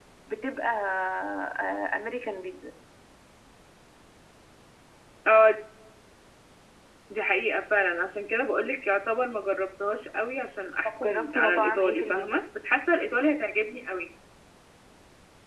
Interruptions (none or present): present